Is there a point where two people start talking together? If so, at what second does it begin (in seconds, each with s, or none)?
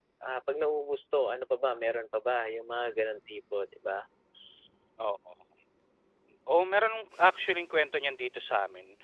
none